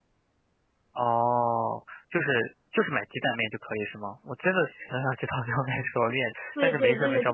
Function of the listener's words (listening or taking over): taking over